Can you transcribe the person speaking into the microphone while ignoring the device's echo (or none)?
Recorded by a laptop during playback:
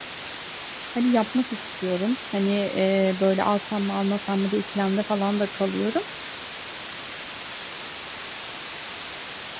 Hani yapmak istiyorum. Hani e, böyle alsam mı almasam mı diye ikilemde falan da kalıyorum.